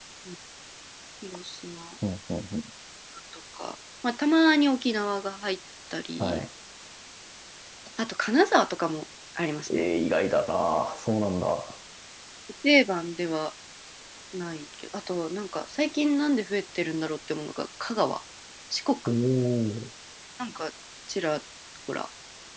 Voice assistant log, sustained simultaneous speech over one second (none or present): none